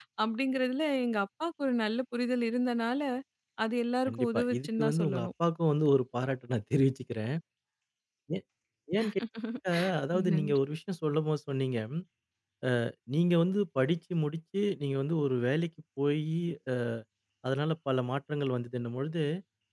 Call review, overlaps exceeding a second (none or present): present